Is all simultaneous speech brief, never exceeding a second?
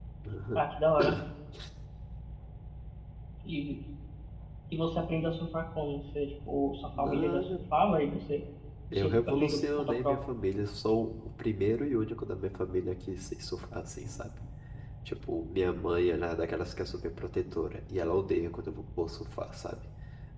No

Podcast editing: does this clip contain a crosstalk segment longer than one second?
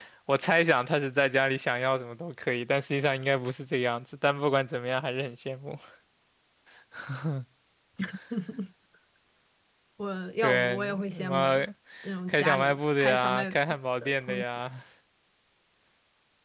Yes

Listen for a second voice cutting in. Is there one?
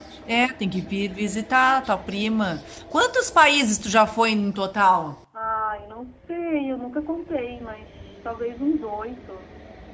No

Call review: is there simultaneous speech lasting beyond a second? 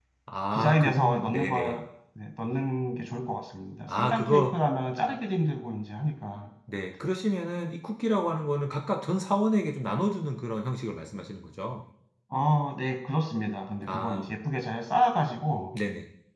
Yes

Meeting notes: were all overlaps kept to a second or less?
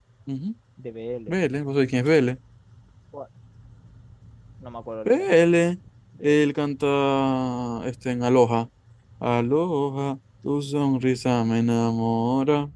Yes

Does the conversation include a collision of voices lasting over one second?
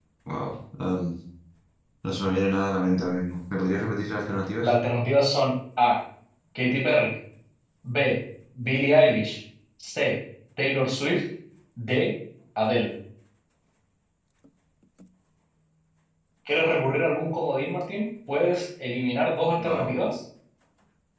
No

